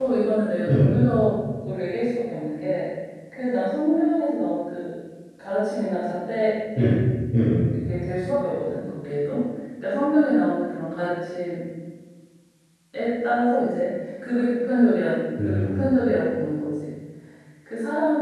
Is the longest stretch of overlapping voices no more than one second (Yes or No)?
Yes